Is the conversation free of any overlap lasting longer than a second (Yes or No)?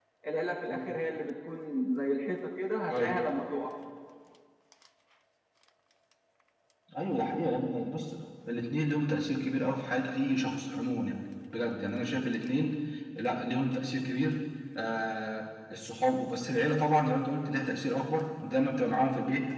Yes